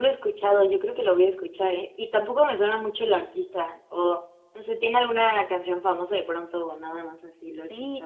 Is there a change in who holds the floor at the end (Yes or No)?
Yes